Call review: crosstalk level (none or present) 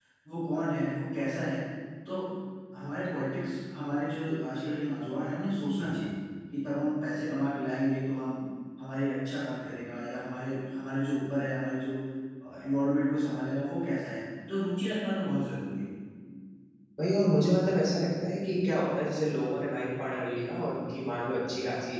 none